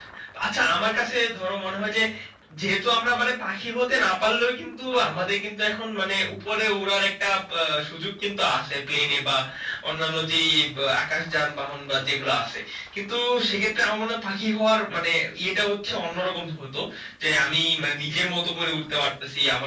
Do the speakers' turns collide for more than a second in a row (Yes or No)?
No